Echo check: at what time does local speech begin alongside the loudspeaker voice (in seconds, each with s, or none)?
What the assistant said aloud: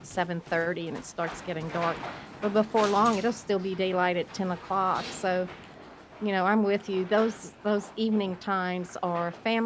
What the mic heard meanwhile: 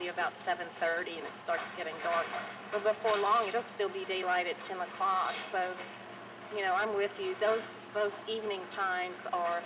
none